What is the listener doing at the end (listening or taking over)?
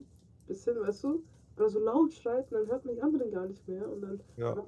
listening